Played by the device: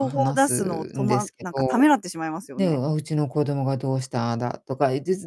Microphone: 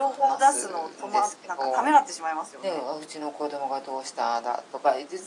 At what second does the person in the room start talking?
none

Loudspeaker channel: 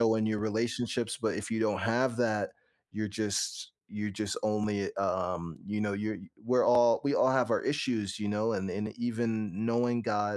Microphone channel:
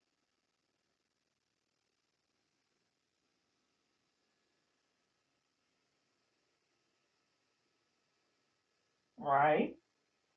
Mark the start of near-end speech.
9.2 s

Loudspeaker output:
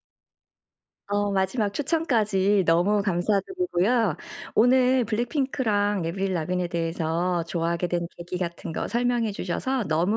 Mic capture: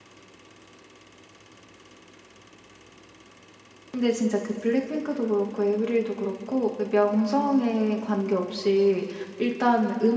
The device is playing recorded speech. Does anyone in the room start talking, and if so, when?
3.9 s

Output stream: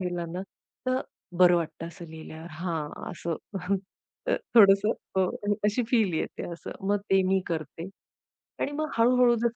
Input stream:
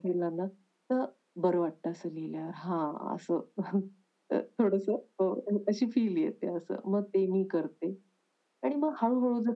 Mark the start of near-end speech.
none

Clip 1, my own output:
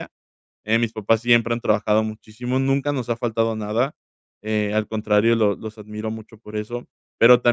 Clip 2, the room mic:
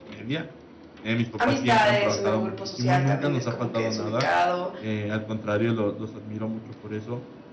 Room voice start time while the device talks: 1.4 s

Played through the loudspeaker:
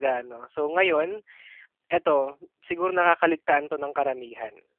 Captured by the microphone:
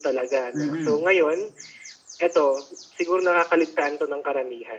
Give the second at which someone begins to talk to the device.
0.5 s

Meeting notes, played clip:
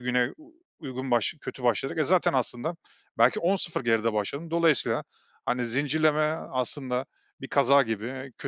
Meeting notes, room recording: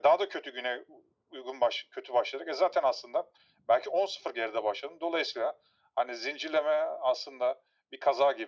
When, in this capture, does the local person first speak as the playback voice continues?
none

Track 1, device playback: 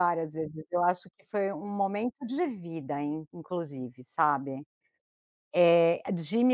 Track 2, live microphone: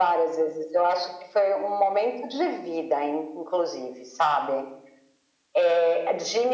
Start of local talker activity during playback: none

